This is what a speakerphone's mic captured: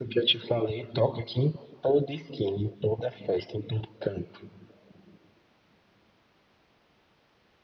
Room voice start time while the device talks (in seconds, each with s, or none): none